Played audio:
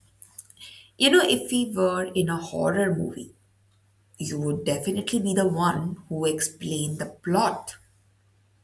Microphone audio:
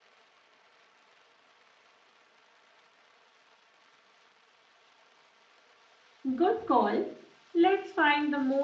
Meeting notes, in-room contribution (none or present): present